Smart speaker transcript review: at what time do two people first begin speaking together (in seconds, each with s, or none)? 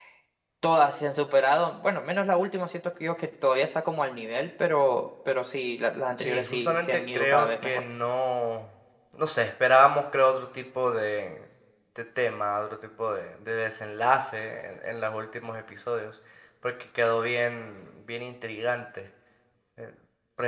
6.2 s